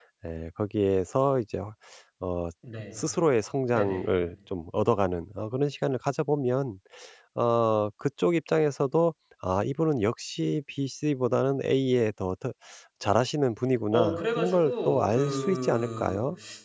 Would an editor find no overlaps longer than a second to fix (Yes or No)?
No